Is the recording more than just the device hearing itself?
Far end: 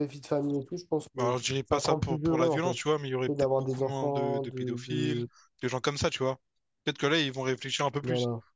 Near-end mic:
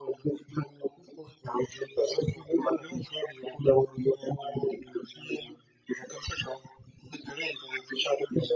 No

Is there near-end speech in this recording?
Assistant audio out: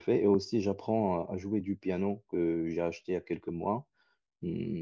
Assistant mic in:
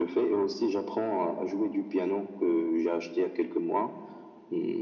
No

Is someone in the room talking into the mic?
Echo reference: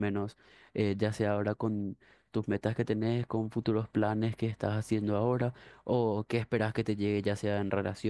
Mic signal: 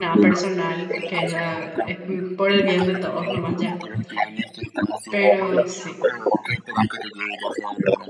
Yes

